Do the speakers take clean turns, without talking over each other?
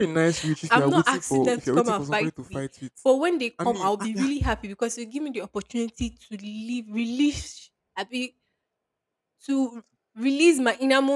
No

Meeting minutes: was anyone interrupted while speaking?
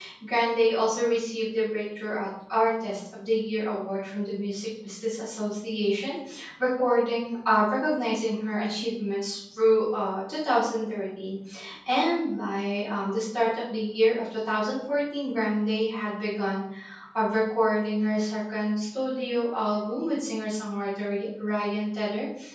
No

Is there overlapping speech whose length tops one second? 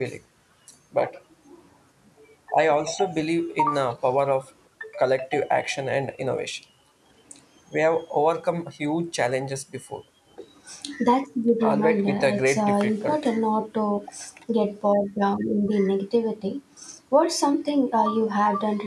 Yes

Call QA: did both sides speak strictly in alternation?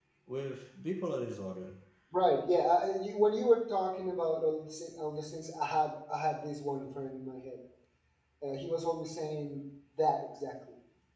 Yes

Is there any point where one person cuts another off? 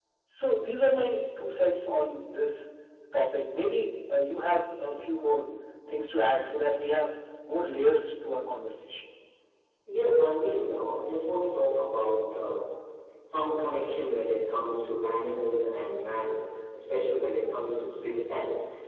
No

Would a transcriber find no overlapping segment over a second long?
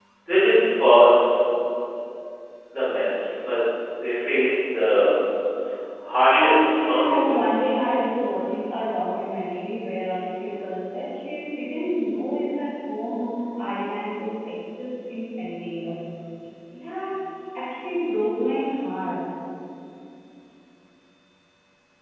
No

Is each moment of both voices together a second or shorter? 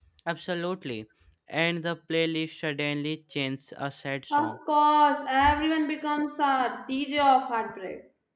Yes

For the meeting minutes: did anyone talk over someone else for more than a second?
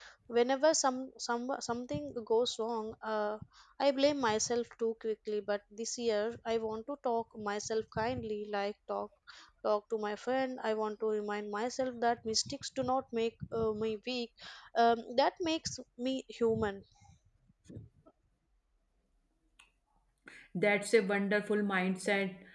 No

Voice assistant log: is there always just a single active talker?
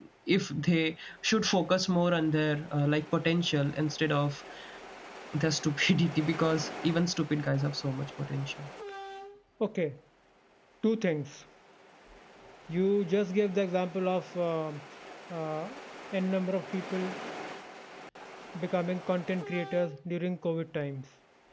Yes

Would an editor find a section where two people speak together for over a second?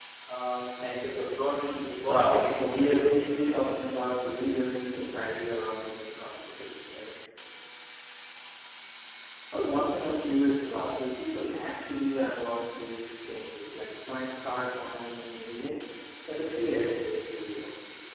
Yes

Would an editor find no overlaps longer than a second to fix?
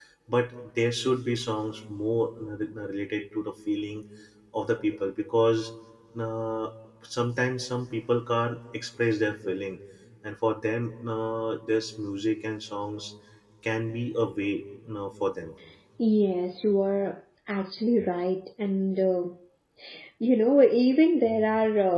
Yes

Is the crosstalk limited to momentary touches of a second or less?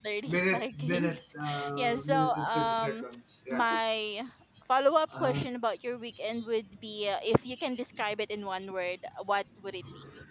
No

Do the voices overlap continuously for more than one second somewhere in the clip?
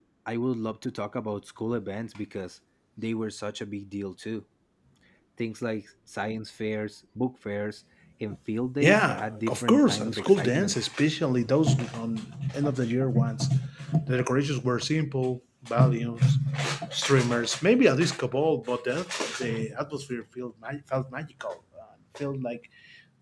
Yes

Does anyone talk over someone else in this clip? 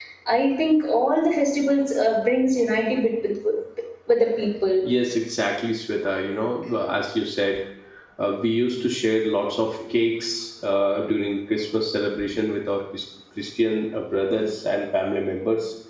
No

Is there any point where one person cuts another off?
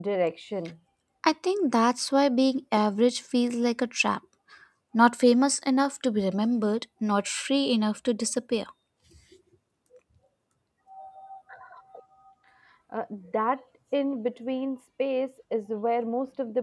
No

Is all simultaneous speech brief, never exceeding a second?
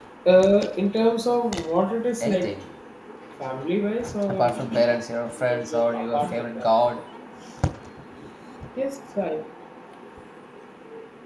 No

